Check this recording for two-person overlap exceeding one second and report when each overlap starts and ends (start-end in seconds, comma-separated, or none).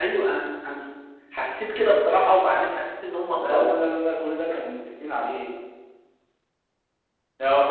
none